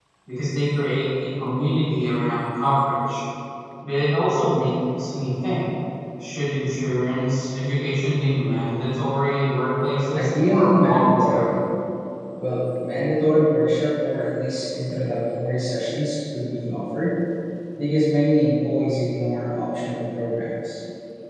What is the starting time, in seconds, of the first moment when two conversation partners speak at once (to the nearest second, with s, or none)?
10 s